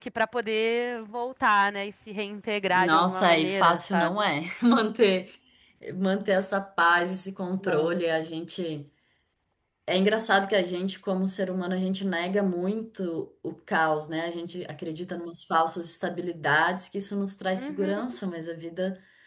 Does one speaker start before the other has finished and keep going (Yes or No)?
Yes